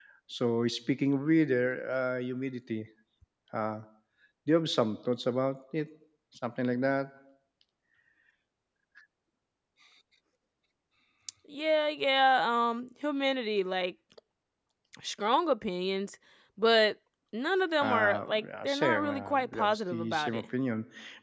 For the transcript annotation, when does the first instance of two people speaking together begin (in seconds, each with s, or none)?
17.8 s